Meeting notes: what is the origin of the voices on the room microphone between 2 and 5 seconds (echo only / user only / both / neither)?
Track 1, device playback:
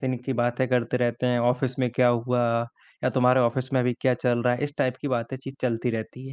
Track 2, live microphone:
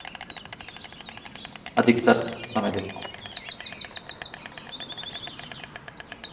user only